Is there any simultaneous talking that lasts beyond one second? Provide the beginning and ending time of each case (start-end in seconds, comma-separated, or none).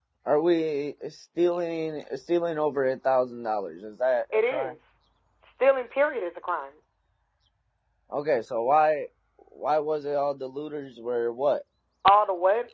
none